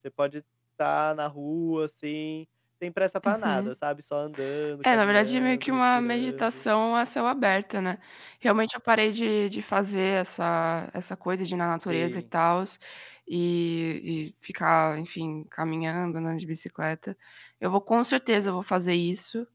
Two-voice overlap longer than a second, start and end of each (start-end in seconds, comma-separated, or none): 4.9-6.6